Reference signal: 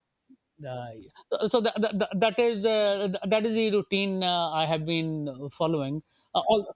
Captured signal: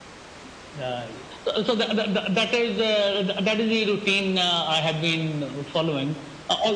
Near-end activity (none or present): none